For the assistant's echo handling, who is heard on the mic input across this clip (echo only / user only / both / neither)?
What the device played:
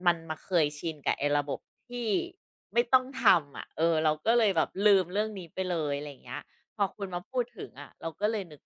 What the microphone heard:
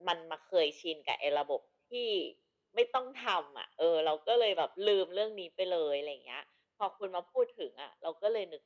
echo only